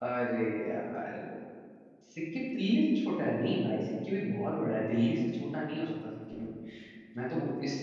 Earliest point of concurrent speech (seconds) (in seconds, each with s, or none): none